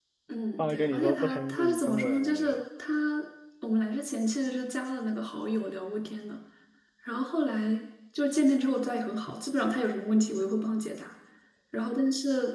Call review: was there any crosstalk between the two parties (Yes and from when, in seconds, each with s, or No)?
Yes, from 0.6 s